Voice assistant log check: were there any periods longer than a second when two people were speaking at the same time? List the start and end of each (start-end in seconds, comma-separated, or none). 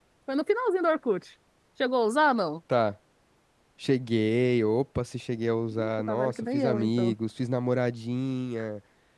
5.7-7.1